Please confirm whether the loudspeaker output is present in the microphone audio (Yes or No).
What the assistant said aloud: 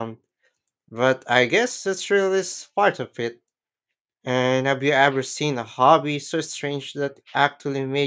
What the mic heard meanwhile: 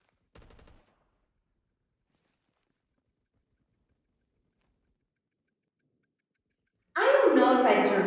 No